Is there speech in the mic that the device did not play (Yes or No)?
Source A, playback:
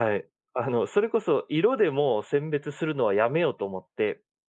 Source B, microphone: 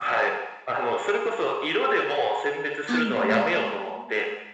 Yes